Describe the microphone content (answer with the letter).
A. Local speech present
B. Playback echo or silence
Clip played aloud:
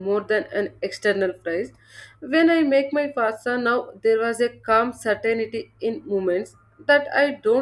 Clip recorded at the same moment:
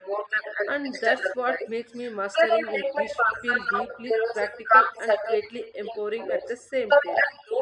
A